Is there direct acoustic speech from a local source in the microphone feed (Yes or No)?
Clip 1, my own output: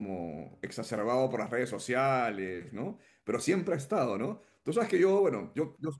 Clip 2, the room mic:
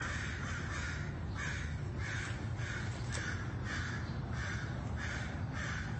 No